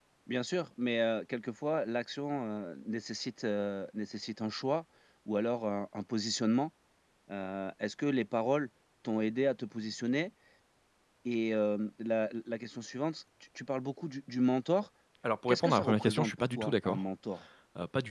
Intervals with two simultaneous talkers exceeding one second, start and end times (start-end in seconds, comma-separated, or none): 15.5-17.0